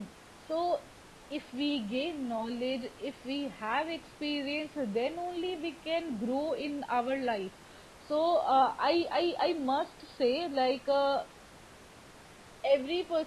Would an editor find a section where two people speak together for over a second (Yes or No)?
No